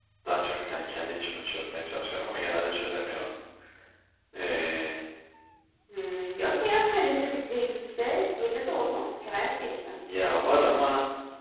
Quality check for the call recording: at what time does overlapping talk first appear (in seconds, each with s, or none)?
none